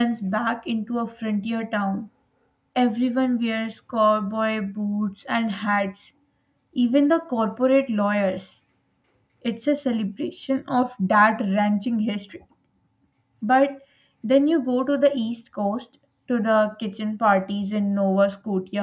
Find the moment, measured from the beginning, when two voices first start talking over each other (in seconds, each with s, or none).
none